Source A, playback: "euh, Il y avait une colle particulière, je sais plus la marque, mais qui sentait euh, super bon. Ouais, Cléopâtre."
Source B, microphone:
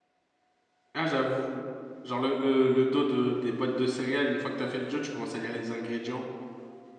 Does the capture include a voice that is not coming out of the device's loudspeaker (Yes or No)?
Yes